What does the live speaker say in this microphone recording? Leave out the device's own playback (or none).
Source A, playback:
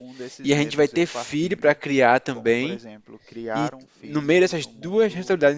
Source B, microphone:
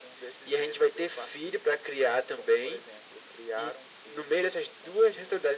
none